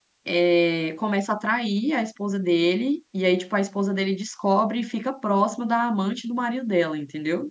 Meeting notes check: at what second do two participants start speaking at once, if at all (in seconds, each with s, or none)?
none